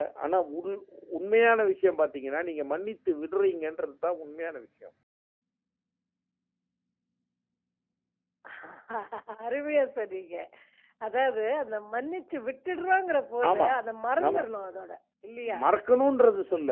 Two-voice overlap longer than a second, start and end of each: none

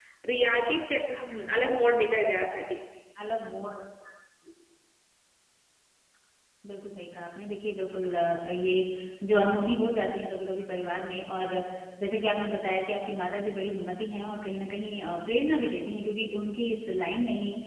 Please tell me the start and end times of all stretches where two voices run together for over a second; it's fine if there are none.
none

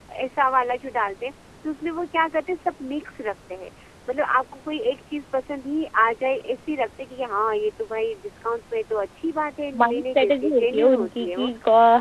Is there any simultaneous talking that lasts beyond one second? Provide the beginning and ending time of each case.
9.8-11.5

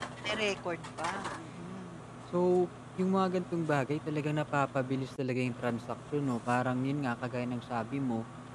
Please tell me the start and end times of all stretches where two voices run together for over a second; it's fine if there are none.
none

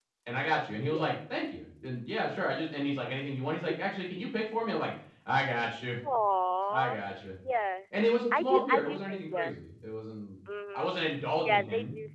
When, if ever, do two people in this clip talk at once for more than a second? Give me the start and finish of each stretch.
8.3-9.5

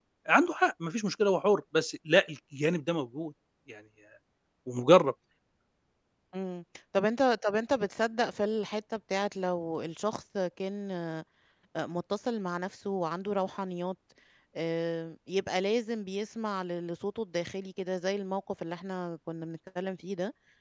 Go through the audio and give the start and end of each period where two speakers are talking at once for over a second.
none

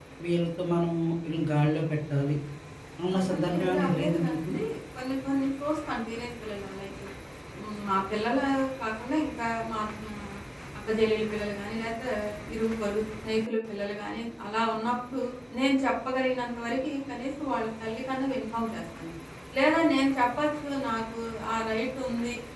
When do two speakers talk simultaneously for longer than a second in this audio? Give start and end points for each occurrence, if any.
3.1-4.5

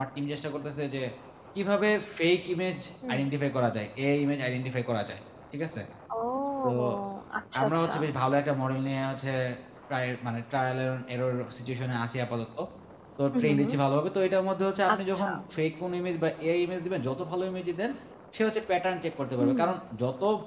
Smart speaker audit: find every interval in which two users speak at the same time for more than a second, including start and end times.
none

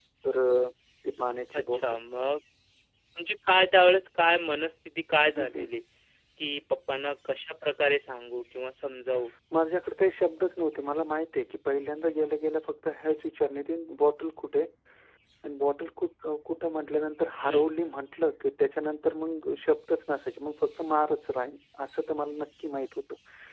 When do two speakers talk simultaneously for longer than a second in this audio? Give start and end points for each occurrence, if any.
none

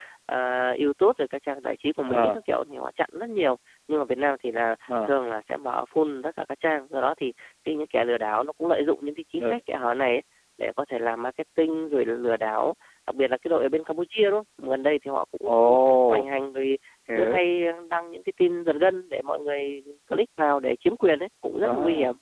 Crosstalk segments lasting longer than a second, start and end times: none

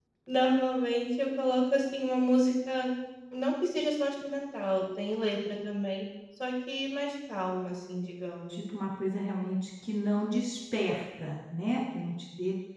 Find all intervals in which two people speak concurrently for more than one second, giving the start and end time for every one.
none

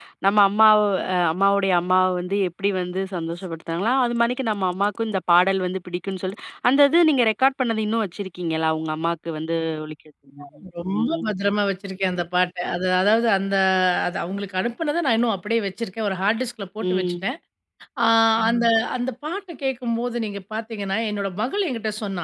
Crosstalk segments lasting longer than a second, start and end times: none

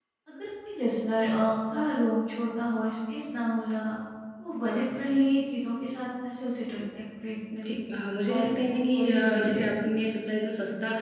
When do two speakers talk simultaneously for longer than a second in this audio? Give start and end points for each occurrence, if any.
8.3-9.6

